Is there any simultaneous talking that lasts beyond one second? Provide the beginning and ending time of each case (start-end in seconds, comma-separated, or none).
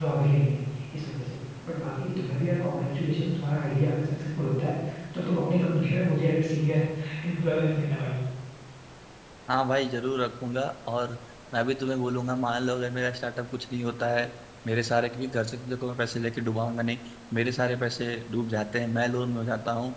none